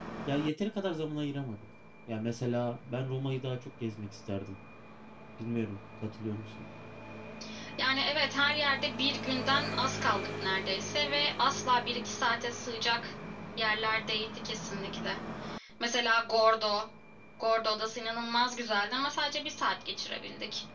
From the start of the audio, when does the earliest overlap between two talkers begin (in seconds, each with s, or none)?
none